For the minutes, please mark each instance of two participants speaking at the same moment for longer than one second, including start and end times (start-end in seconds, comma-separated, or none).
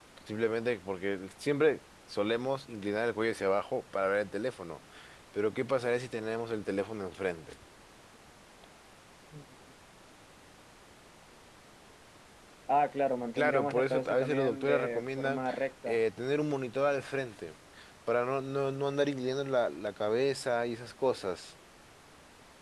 13.3-15.4